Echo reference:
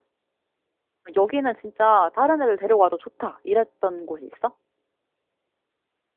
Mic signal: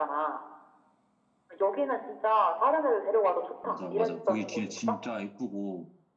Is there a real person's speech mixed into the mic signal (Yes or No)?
Yes